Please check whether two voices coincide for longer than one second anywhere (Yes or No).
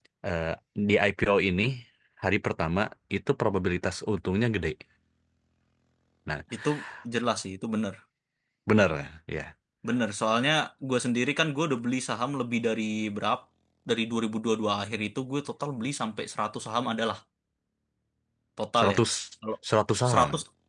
No